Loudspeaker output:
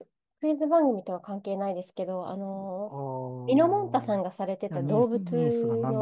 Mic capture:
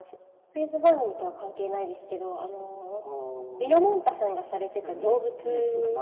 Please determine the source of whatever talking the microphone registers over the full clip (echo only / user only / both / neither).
echo only